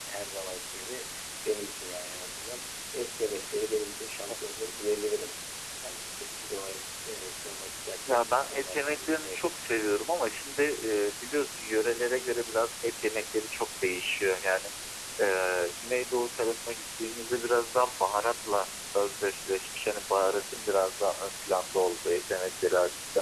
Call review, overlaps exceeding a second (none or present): present